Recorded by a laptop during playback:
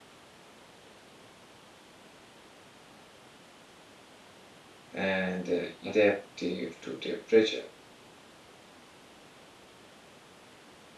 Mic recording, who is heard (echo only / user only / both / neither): user only